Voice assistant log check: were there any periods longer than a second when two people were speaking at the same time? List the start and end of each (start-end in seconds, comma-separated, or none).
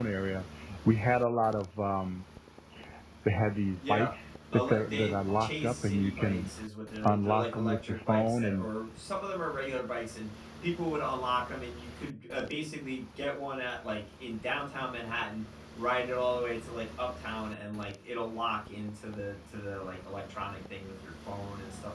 4.5-6.5, 7.0-8.7